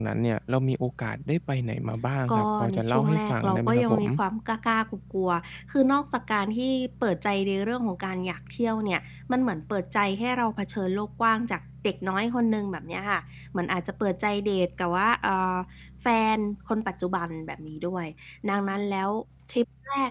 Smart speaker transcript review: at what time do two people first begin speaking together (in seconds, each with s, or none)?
2.3 s